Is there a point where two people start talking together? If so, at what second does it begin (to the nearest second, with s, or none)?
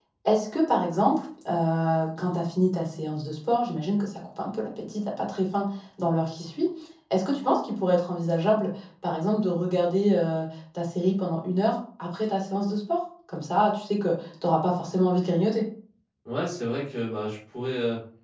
none